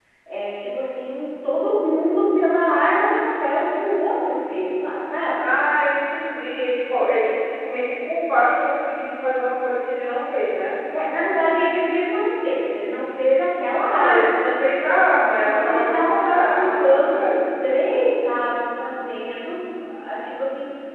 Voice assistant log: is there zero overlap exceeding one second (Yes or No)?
No